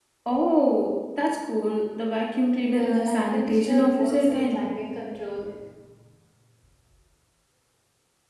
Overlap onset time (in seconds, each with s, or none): 2.6 s